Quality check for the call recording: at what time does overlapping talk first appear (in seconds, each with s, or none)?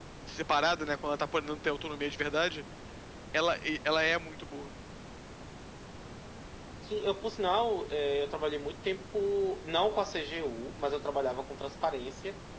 none